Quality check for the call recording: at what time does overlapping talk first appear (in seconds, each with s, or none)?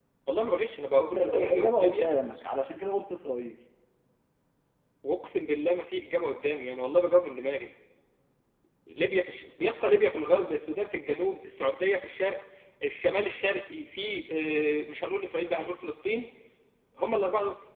1.1 s